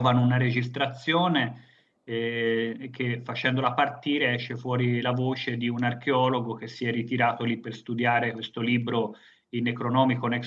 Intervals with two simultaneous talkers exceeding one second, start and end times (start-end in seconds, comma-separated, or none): none